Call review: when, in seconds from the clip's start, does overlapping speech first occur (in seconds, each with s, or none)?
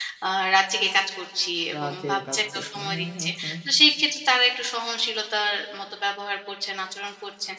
1.7 s